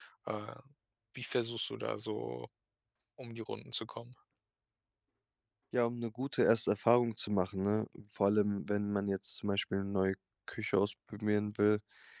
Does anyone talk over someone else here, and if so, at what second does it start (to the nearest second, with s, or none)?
none